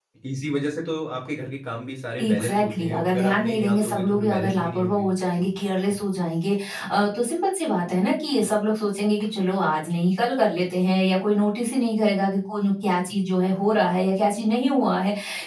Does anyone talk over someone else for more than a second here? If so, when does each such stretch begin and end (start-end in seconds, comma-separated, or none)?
2.2-5.1